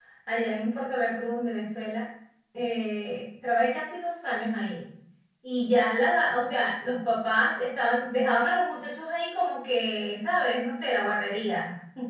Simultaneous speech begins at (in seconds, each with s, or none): none